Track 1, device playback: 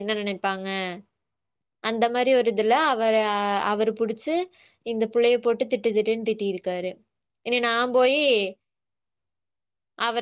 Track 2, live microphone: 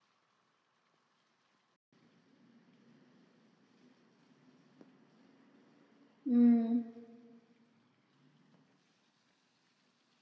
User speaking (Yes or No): Yes